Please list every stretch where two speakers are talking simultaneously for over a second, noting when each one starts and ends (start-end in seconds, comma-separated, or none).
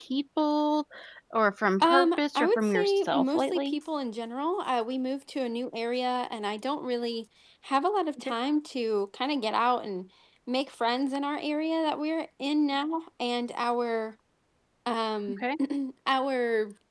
1.8-3.8